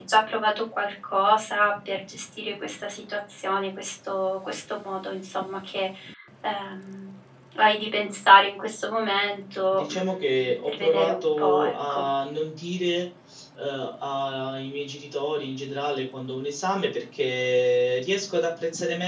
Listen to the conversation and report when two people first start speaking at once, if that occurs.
10 s

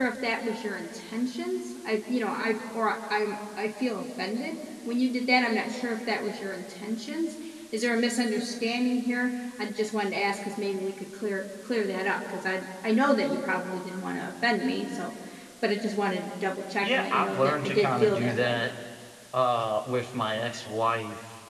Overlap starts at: 17 s

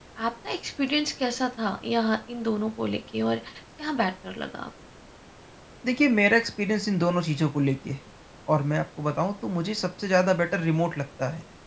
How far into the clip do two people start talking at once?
none

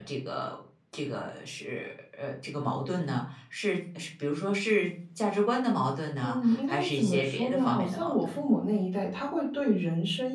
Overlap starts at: 6 s

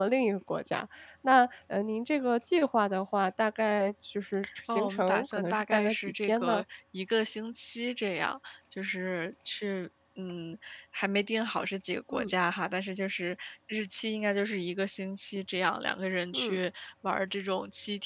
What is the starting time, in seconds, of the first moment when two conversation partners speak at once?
5 s

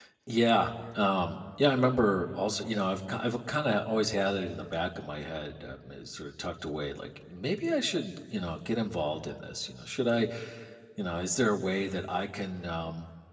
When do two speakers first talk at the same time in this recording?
none

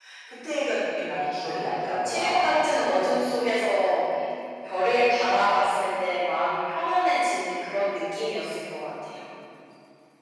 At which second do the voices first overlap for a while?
1 s

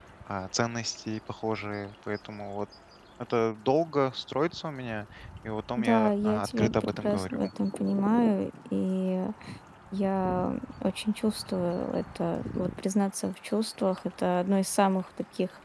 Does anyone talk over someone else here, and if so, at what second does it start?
6 s

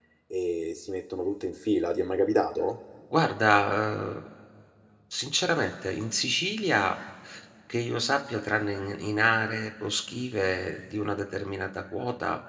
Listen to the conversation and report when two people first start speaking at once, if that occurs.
none

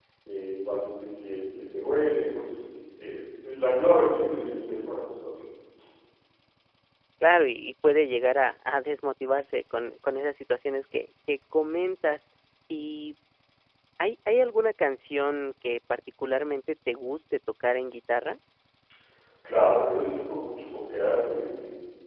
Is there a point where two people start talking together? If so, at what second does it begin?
none

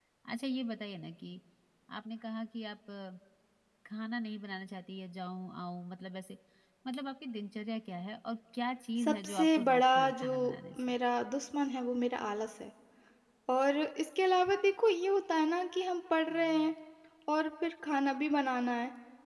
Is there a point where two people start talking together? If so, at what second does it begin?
9 s

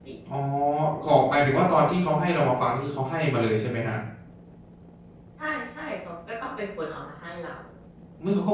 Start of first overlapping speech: none

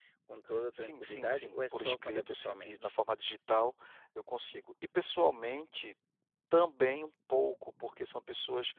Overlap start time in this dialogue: 1 s

